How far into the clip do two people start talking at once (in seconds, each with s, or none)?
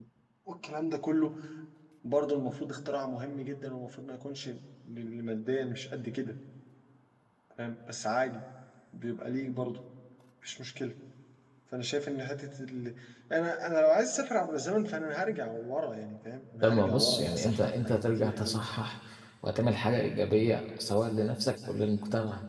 16.6 s